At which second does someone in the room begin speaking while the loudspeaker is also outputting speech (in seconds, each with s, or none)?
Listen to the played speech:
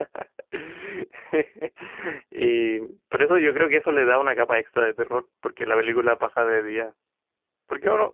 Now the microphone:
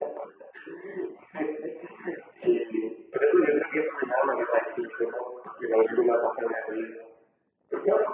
none